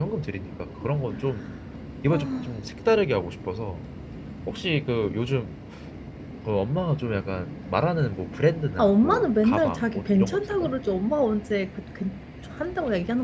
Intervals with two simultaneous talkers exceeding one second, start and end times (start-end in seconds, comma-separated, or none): 8.8-10.7